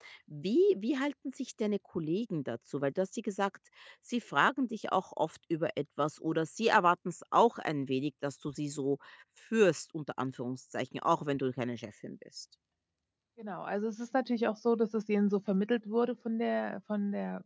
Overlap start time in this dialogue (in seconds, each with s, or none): none